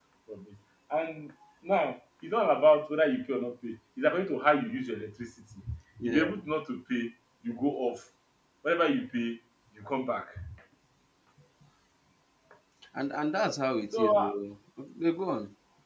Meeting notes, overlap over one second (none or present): none